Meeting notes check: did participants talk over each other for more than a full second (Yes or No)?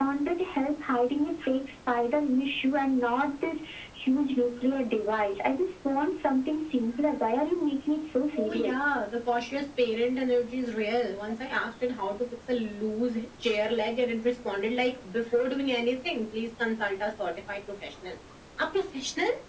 No